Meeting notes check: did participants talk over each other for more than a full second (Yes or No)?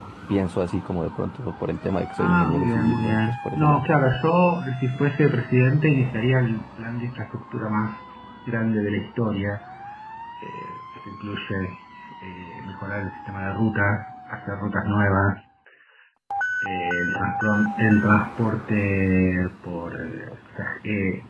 Yes